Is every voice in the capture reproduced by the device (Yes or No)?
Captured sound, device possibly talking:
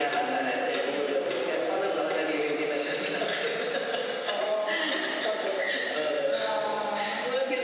Yes